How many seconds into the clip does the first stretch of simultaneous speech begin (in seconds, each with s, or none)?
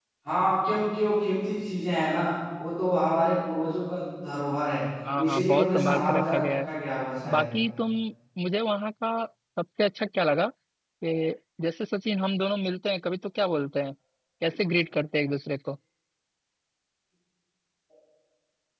5.0 s